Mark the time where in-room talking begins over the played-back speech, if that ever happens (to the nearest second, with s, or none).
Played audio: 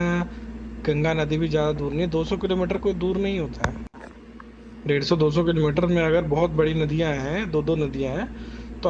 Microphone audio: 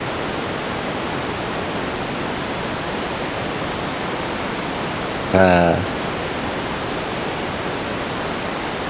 5 s